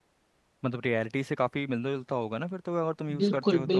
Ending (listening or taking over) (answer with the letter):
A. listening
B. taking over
B